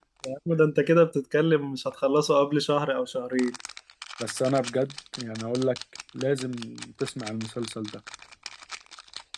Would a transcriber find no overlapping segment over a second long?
Yes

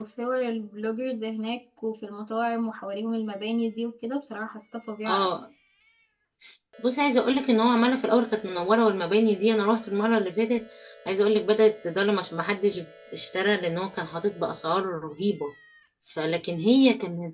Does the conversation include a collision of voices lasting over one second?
No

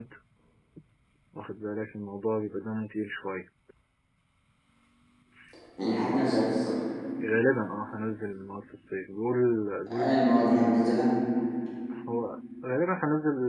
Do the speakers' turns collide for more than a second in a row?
No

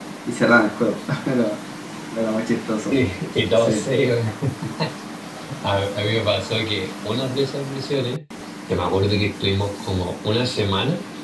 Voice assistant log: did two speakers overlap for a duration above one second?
No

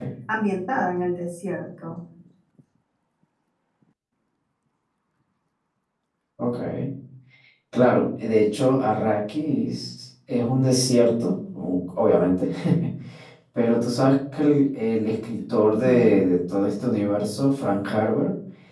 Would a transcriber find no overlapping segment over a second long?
Yes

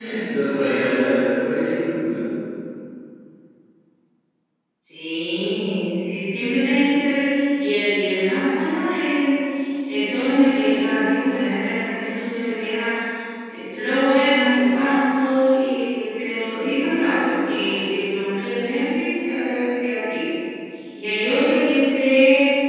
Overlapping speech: No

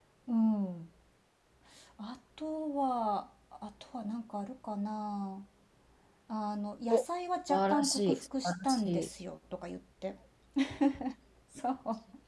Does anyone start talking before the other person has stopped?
Yes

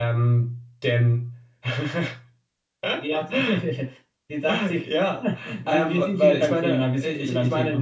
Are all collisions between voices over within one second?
No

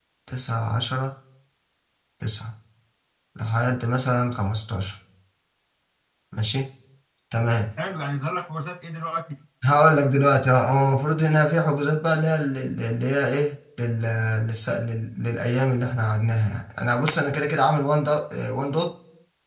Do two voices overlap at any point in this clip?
No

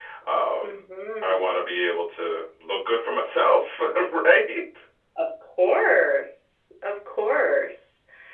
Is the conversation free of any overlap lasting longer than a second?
Yes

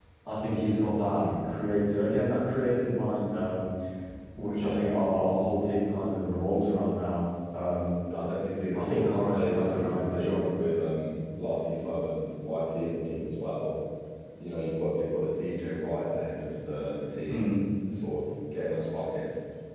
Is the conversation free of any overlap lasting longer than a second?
No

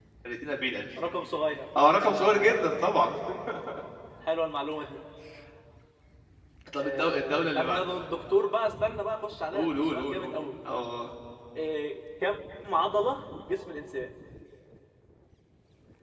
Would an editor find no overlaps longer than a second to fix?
No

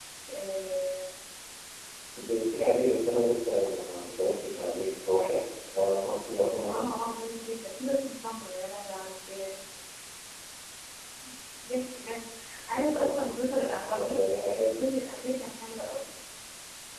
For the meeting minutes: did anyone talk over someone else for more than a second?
Yes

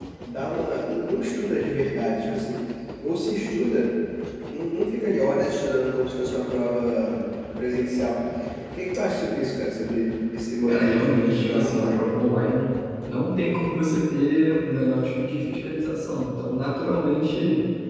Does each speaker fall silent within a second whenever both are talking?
No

